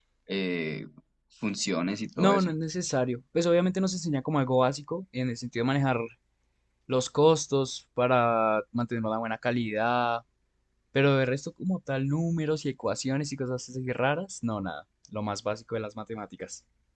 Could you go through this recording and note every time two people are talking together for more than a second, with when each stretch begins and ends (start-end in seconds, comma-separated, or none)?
none